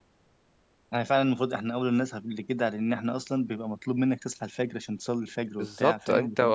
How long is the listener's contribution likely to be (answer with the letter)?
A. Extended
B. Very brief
A